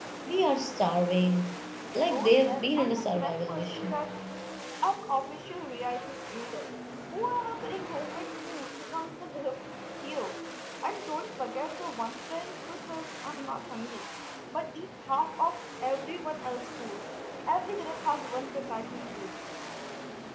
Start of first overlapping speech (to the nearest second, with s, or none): 2 s